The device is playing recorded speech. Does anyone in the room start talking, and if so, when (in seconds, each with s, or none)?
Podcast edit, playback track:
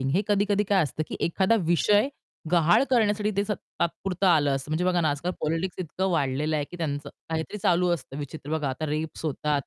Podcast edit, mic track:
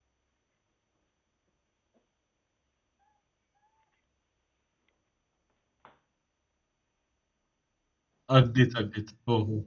8.3 s